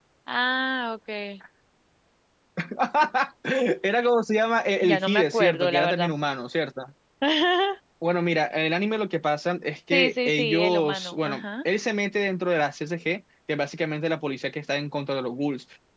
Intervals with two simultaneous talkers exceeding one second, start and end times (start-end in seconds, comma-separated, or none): 4.8-6.1, 9.9-11.4